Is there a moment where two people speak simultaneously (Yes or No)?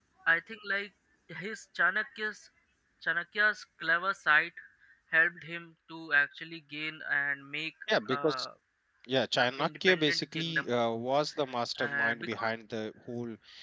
Yes